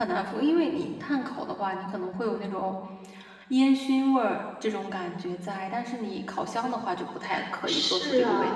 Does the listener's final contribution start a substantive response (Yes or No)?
Yes